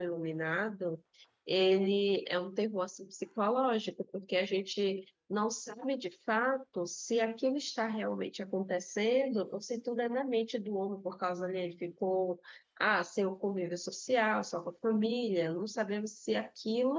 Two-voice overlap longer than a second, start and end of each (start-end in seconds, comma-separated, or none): none